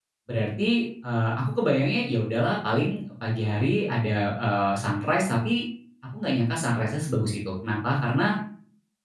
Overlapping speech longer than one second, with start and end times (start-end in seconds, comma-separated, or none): none